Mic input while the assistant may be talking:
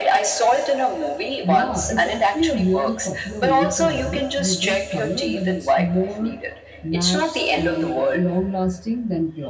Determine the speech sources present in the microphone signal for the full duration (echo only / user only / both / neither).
both